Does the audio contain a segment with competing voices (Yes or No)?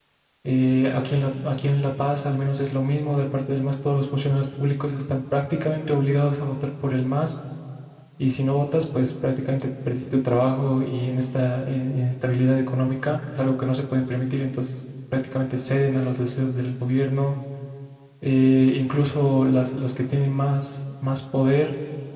No